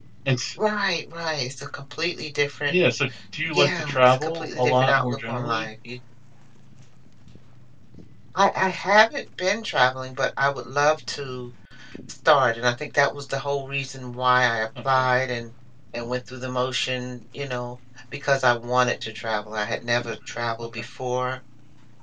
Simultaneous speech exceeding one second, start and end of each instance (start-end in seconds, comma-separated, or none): 3.5-5.7